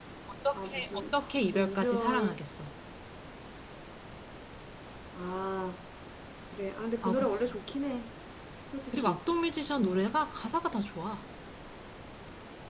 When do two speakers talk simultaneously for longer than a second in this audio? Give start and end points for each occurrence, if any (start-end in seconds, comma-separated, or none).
0.5-2.4